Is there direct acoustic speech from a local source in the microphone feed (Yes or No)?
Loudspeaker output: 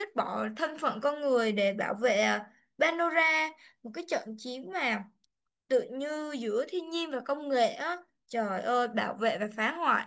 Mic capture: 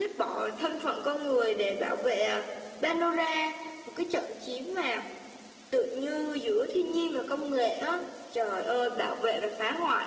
No